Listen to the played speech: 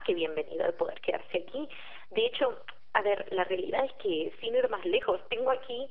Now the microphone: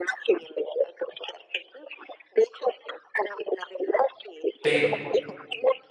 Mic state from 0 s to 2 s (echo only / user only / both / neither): echo only